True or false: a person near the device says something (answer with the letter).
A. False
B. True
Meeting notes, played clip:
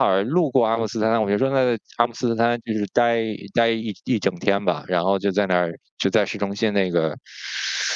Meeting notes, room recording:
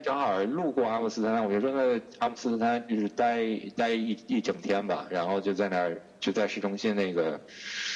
A